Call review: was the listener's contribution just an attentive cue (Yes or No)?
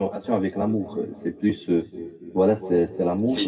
Yes